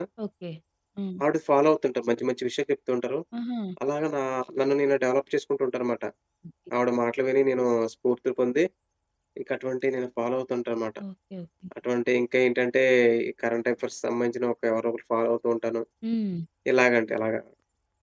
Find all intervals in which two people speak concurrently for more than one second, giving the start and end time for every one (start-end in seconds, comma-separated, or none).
none